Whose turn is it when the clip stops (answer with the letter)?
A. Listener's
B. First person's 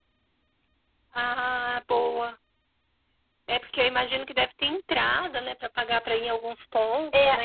A